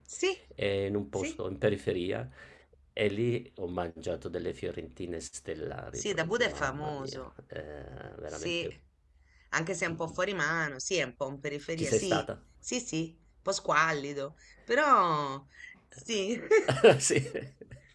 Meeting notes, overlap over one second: present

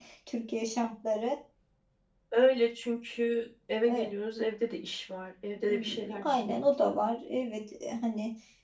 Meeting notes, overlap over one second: present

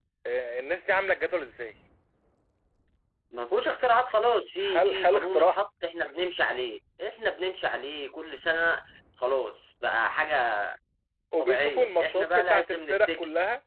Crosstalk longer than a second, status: present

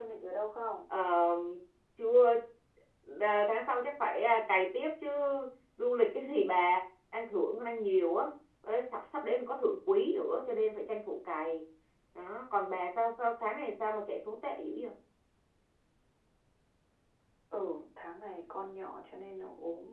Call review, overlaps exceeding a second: none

